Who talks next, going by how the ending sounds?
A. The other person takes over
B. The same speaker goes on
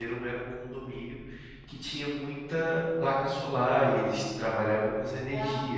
B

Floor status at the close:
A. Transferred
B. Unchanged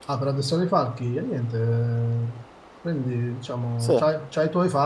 B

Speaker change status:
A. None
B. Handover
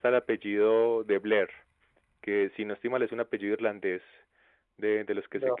A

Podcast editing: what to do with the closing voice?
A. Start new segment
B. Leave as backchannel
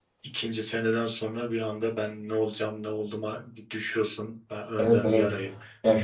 A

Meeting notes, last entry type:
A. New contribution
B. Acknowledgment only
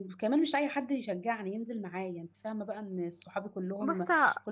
B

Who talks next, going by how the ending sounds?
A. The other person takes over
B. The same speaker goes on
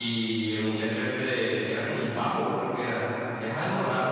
A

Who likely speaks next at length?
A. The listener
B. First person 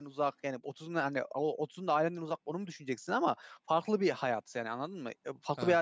B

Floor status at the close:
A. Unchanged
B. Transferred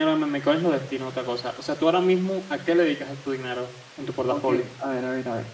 B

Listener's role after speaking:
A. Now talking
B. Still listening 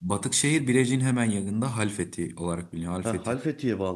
A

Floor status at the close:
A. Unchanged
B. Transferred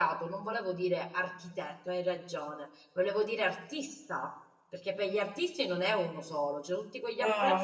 B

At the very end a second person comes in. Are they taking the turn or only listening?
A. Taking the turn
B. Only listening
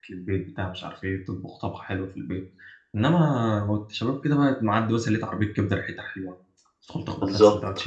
A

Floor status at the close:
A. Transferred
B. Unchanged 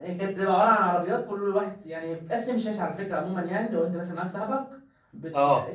B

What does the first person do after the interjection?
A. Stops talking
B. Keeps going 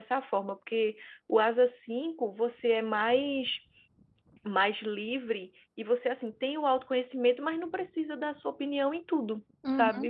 A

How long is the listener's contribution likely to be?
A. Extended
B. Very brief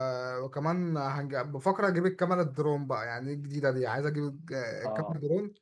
B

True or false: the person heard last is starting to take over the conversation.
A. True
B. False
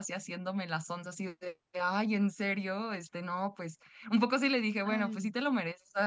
B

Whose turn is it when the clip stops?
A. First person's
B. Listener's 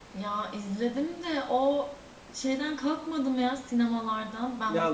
B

